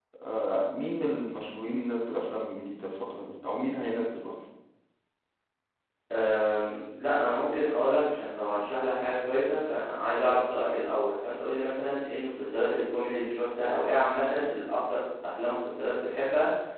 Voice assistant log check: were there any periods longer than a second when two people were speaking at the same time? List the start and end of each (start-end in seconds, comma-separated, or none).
none